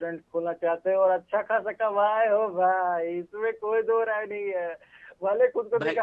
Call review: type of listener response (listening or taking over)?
listening